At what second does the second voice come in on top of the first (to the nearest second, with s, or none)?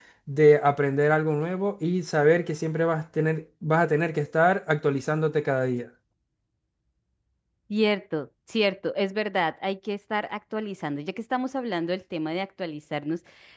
none